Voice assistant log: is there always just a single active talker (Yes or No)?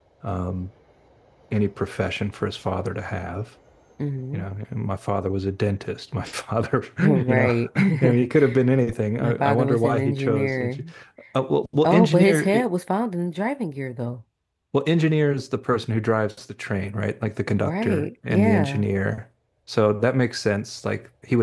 No